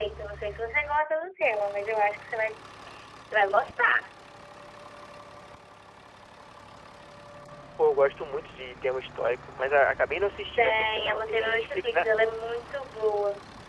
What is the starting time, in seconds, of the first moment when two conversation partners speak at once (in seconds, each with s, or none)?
10.6 s